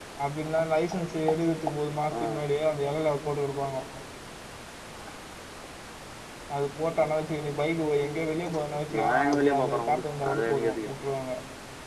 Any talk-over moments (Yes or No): Yes